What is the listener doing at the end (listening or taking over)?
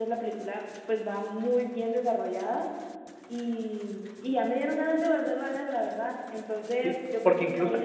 taking over